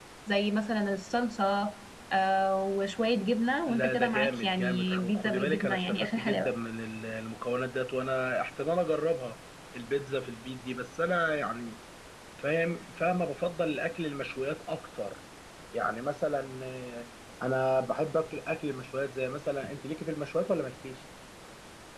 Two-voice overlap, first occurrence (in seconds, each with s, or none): 3.7 s